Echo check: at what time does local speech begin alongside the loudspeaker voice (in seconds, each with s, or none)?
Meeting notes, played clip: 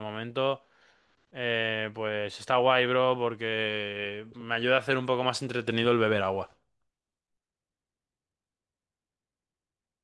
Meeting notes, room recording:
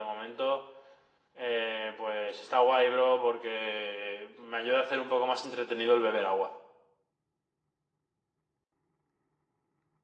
none